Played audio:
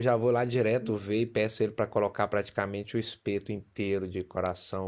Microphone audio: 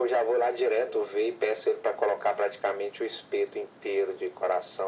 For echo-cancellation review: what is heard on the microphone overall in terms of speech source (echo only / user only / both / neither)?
echo only